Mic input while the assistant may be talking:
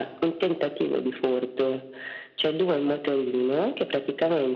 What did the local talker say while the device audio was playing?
none

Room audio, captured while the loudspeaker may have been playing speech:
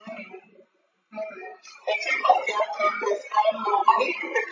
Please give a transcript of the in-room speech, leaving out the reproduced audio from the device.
none

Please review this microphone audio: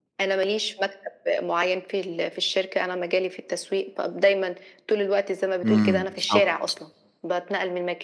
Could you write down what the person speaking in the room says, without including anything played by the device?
امم. بالضبط.

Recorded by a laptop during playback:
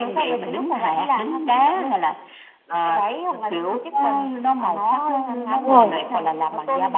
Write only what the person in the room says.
Đúng rồi.

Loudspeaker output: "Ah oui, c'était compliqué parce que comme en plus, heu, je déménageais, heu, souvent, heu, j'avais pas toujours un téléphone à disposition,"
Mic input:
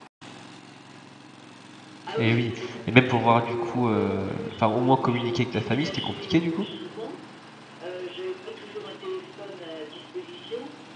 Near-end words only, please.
Et oui et même pour voir du coup, heu enfin au moins communiquer avec ta famille, c'était compliqué du coup?

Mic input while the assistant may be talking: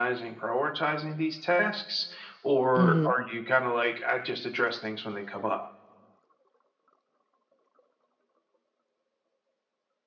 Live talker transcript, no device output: Mhm.

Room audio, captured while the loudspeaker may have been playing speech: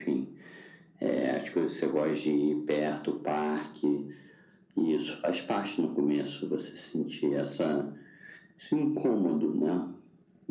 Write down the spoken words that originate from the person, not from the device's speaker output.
none

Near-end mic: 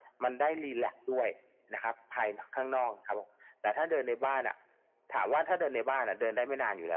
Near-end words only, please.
none

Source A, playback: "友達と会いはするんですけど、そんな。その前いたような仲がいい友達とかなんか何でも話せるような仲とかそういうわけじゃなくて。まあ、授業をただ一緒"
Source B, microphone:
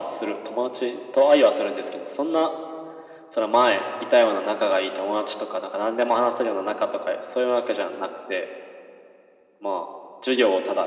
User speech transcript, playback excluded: none

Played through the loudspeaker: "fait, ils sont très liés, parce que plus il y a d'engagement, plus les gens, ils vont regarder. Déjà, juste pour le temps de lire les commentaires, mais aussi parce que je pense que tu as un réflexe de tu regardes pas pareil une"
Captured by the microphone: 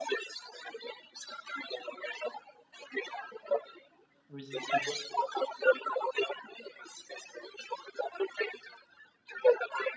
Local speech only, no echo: Oui, OK.

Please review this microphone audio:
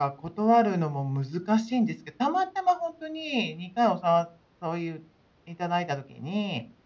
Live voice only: none

